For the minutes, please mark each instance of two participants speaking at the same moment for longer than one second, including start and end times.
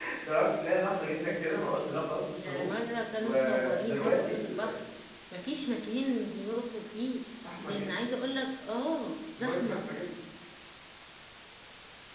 1.3-2.6, 3.2-4.4

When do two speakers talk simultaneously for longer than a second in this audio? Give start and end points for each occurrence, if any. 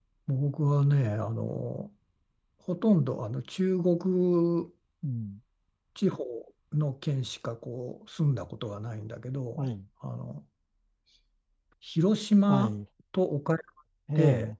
none

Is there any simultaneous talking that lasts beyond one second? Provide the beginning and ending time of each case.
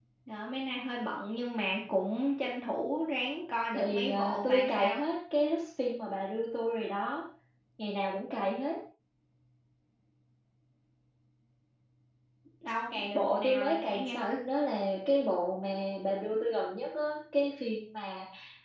3.7-5.0, 13.1-14.3

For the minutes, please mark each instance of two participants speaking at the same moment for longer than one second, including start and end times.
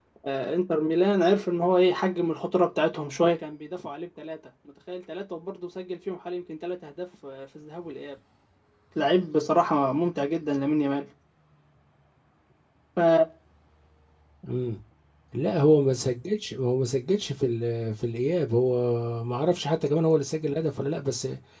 none

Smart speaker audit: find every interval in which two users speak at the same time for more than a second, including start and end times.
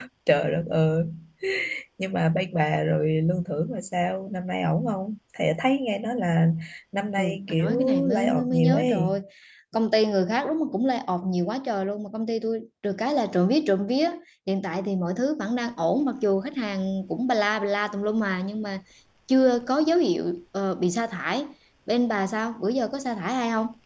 7.2-9.1

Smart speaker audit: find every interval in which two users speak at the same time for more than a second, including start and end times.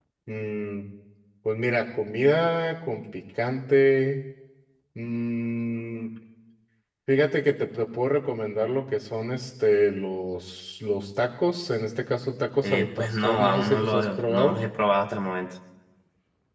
12.6-14.6

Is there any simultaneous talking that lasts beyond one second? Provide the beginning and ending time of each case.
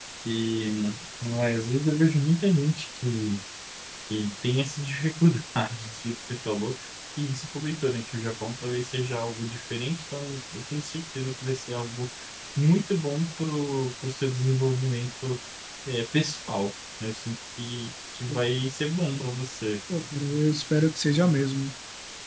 none

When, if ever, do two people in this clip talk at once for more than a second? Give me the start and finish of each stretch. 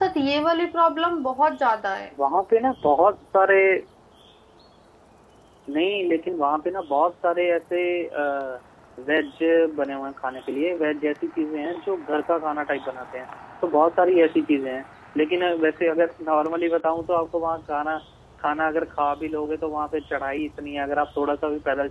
none

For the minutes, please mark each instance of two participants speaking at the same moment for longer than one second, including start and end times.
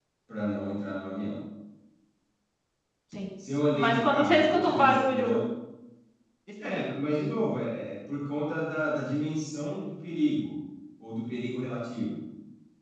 3.8-5.4

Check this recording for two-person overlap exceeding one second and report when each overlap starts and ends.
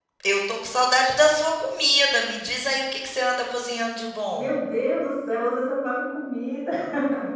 none

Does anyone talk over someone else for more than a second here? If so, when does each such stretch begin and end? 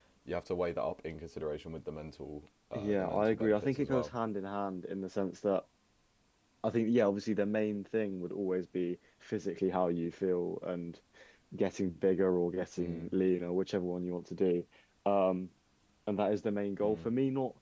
2.7-4.1

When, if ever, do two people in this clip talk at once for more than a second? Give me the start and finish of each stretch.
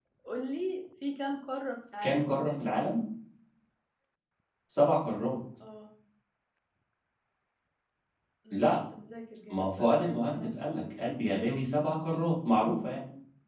9.5-11.1

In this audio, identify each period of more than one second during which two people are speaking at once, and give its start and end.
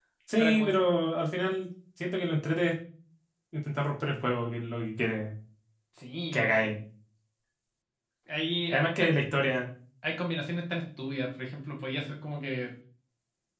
none

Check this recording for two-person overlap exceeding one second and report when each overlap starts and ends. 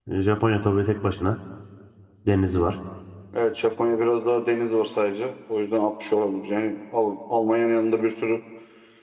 none

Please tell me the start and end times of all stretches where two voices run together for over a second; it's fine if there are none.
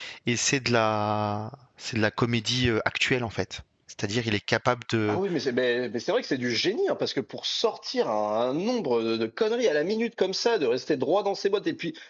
none

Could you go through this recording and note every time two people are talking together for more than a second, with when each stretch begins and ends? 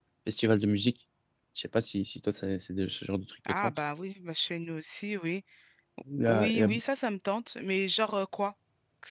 none

